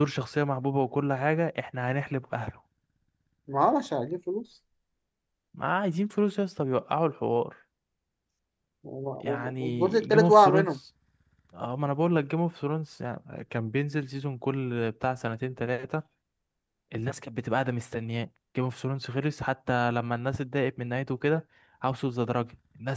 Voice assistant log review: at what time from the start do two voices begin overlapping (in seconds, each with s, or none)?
9.2 s